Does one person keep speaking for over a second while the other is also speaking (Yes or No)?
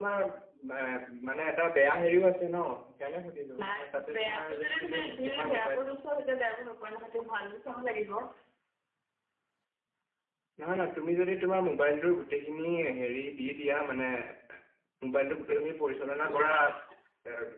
Yes